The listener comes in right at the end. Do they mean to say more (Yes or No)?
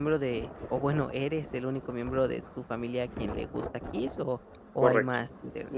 Yes